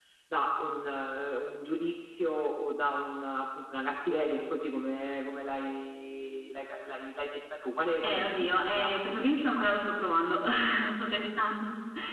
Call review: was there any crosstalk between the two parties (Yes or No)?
Yes